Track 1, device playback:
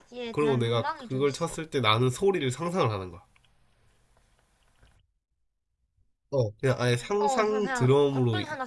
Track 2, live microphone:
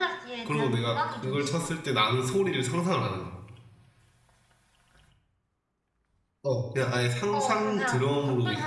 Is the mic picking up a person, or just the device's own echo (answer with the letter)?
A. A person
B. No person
B